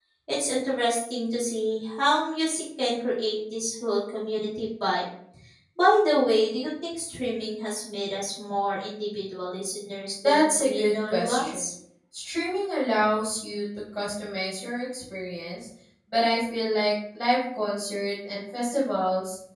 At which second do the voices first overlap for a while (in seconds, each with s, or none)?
10.2 s